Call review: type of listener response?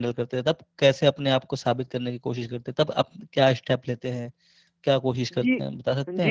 taking over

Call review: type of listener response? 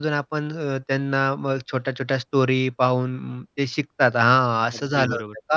taking over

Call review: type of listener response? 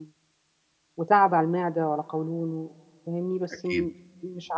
listening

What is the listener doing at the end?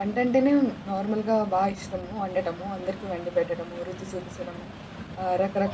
listening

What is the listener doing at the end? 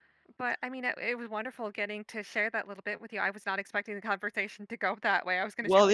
taking over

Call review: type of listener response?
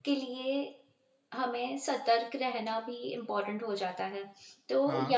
listening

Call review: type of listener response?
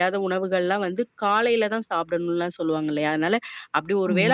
listening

